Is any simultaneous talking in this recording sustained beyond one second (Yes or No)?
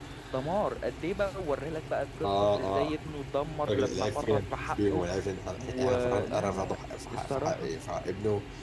Yes